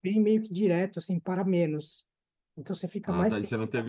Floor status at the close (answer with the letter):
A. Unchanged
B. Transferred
B